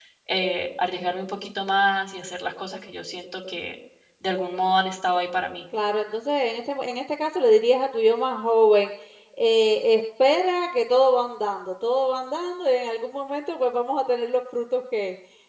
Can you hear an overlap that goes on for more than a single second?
No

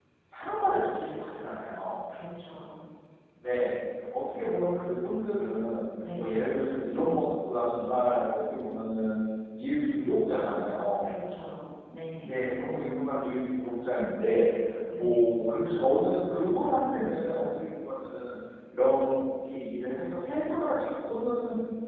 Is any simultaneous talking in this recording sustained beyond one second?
No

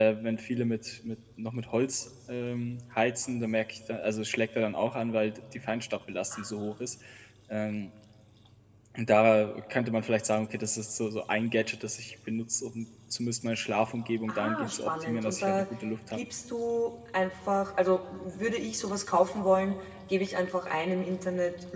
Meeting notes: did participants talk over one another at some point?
Yes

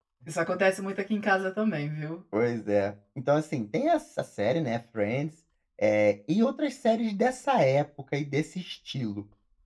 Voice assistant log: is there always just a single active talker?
Yes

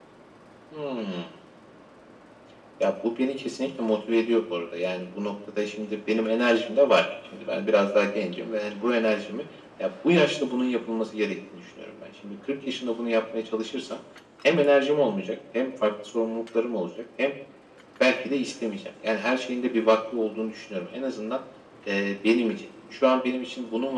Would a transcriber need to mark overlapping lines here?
No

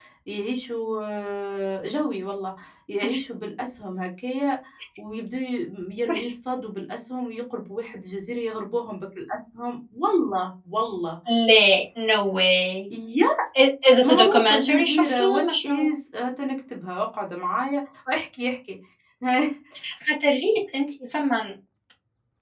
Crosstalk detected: Yes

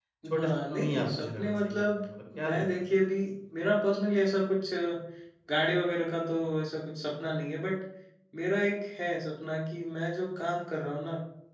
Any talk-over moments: Yes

